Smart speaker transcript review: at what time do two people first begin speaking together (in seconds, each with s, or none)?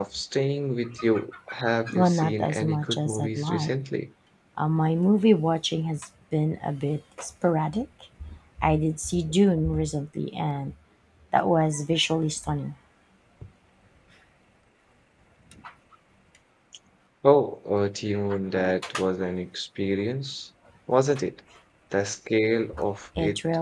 2.0 s